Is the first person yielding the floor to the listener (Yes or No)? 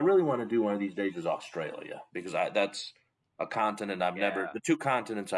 No